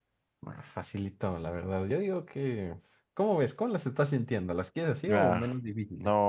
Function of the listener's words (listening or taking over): taking over